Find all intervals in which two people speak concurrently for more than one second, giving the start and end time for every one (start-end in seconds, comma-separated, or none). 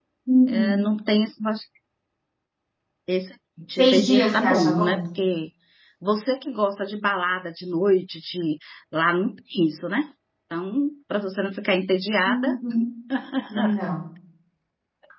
3.7-5.0